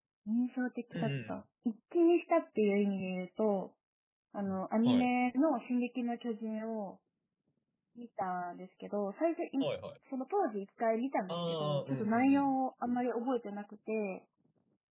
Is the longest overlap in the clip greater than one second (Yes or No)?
Yes